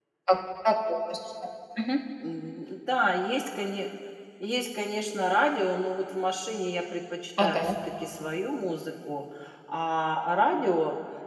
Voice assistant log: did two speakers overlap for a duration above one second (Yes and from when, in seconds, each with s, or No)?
No